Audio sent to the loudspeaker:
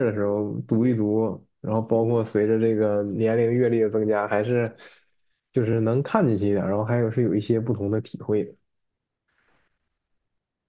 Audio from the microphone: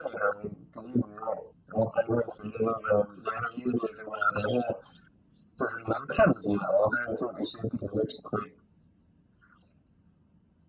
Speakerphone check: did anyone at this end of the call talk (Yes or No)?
No